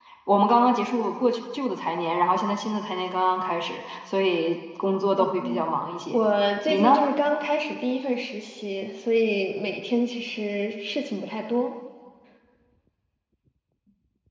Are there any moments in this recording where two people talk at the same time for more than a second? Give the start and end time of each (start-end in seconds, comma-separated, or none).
none